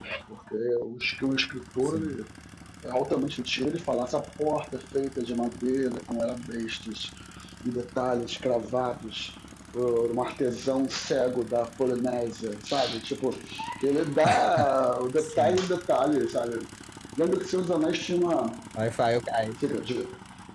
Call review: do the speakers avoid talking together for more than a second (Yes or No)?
Yes